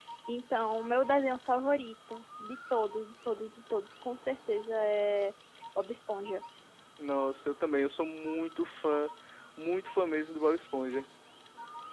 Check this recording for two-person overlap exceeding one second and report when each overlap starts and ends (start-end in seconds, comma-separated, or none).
none